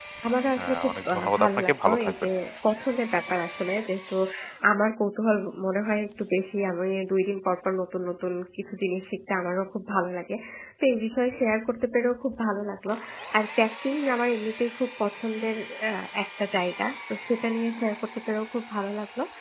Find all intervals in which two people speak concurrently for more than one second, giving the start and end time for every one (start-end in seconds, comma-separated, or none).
0.6-2.1